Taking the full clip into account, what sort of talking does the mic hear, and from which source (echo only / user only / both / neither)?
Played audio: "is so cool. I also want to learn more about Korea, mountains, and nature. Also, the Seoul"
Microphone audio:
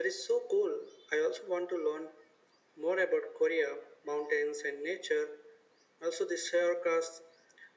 echo only